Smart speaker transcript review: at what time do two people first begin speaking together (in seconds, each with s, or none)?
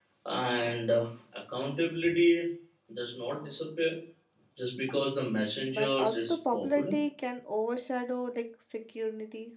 5.6 s